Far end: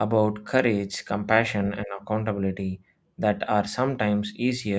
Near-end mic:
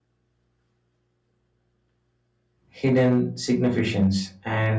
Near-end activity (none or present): present